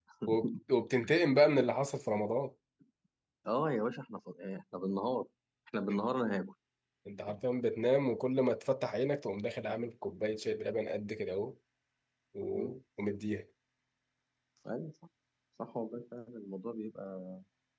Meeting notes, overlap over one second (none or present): none